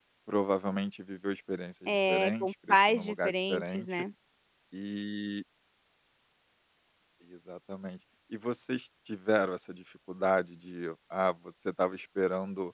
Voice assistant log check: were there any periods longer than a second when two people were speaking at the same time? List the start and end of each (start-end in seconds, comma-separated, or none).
1.9-4.0